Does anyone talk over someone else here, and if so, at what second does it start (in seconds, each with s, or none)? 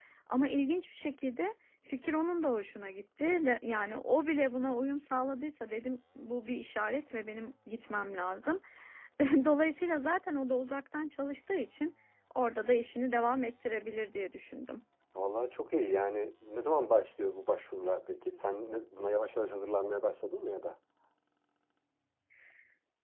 none